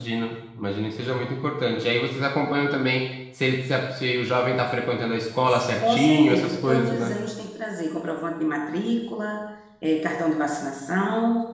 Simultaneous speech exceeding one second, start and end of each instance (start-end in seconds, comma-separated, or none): 5.8-7.1